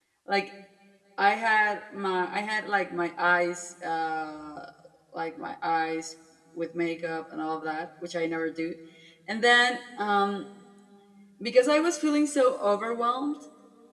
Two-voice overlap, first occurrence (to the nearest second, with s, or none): none